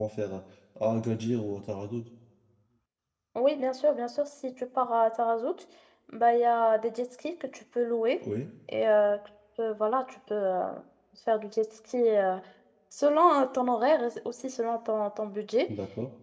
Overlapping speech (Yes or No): No